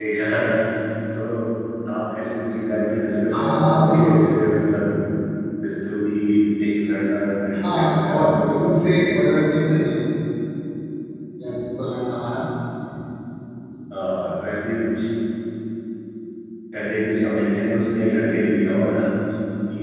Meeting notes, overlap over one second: present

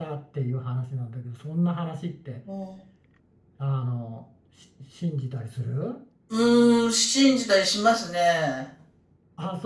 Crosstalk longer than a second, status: none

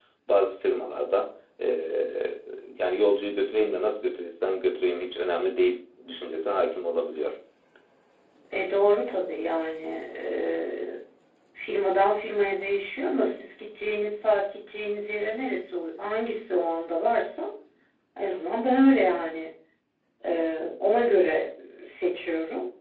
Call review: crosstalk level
none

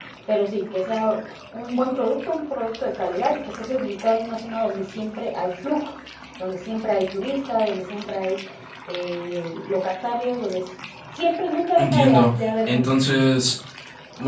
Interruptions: present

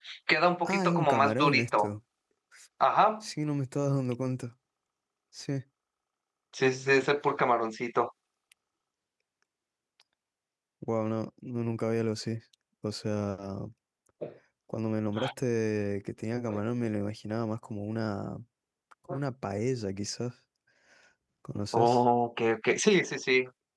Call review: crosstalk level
present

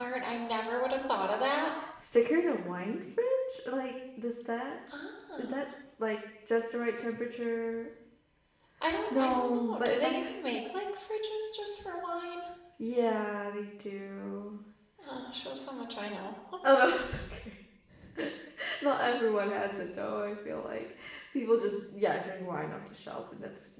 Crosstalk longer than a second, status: present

